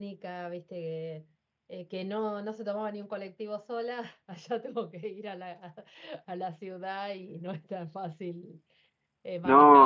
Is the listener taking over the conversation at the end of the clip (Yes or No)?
No